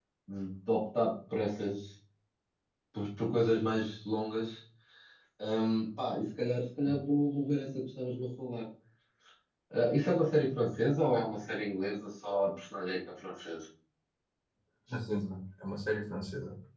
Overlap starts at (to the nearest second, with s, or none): none